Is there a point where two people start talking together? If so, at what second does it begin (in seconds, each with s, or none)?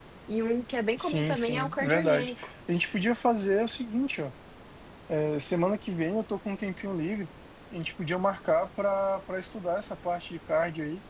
1.0 s